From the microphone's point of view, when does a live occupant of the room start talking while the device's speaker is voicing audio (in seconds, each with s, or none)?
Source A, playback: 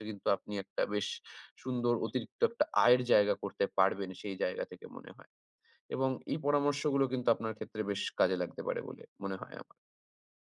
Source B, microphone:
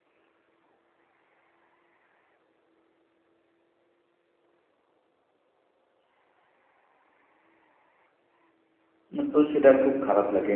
9.2 s